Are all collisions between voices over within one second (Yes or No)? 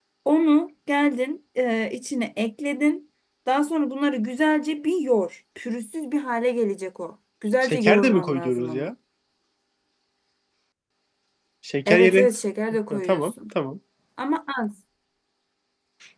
No